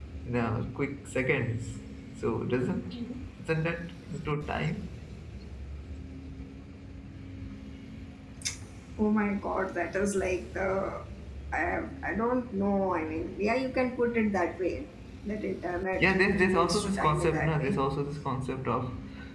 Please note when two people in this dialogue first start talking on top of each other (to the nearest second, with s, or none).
16 s